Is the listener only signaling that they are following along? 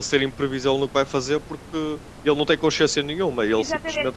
No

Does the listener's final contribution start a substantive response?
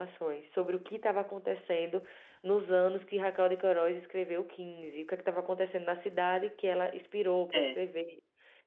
No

